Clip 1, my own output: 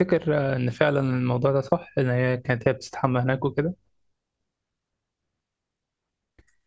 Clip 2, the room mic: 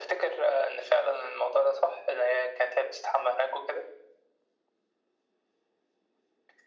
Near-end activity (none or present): none